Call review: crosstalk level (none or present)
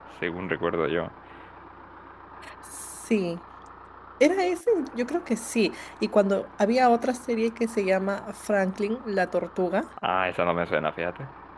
none